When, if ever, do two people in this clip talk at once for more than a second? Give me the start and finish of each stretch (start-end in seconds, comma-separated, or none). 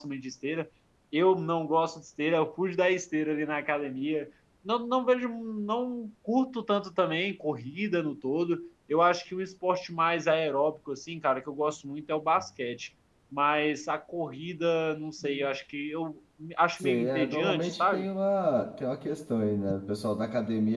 16.8-18.1